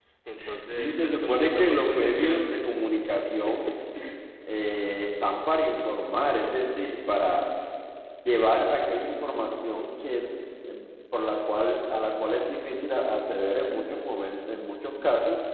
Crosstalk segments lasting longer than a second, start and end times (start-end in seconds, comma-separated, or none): 0.7-2.6